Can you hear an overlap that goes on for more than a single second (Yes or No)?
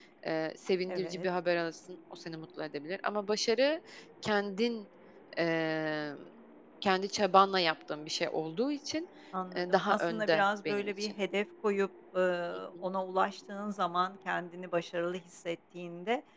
Yes